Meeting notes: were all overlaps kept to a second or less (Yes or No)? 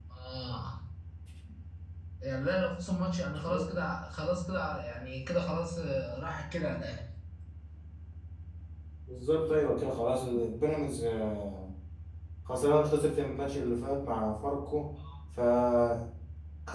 Yes